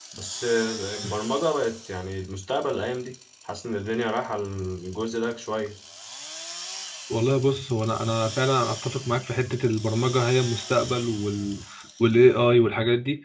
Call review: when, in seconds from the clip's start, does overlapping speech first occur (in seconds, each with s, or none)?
none